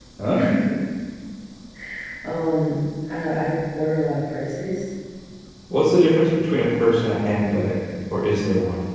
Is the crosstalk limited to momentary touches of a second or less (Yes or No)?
Yes